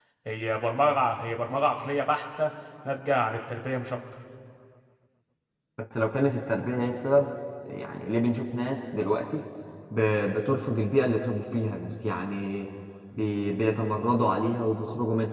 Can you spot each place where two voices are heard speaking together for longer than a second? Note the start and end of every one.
none

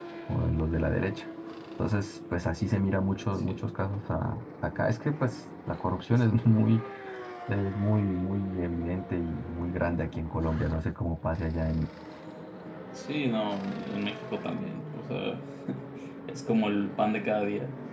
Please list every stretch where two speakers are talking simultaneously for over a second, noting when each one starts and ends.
none

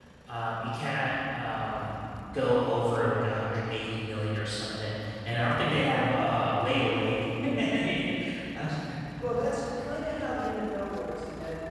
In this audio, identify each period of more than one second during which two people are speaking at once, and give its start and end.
none

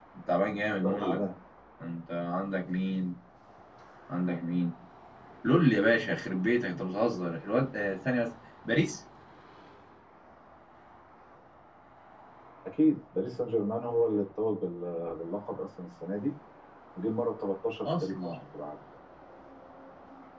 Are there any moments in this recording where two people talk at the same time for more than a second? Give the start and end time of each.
none

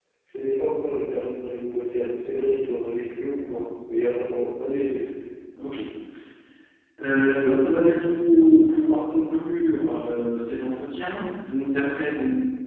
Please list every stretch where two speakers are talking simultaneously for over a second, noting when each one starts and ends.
none

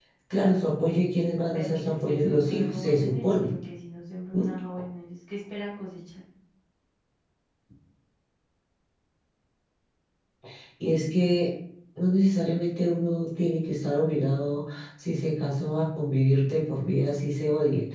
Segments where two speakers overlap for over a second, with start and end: 1.5-3.5

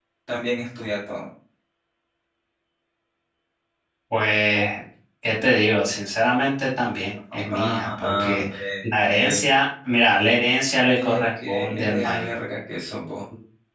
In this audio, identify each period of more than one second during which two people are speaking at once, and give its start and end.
7.3-9.4, 11.0-12.4

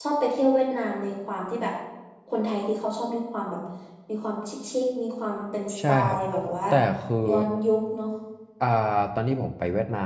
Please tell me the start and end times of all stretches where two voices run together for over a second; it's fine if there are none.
none

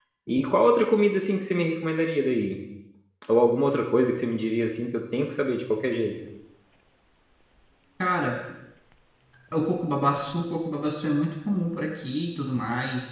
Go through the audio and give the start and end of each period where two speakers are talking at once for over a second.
none

